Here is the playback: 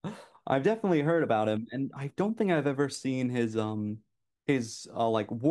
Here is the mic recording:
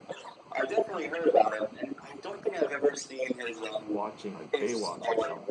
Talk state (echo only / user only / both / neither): both